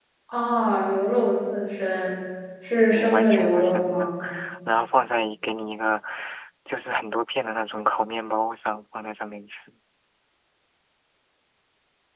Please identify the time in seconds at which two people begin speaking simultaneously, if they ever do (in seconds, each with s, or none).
2.9 s